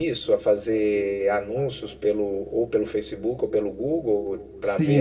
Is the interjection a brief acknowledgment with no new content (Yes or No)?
No